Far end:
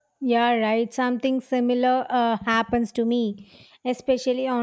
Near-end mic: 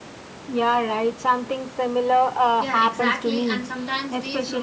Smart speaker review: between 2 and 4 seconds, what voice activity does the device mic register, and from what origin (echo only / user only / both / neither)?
both